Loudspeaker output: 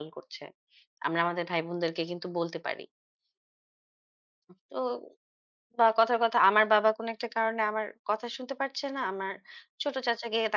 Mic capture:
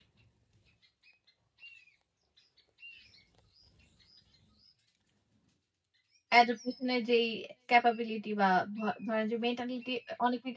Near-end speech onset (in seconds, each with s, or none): 6.4 s